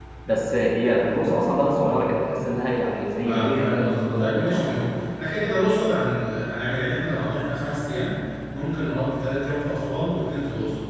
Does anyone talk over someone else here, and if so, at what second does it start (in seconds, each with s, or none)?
3.2 s